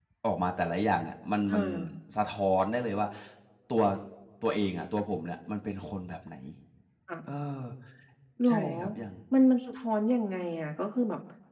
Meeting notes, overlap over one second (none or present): none